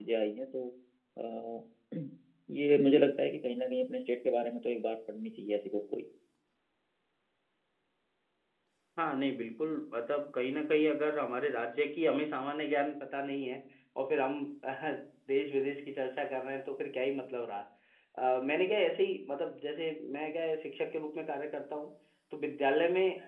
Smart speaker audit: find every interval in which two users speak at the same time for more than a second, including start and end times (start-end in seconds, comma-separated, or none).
none